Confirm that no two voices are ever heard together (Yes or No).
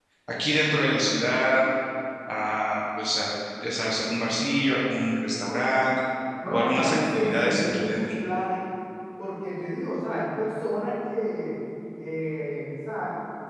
No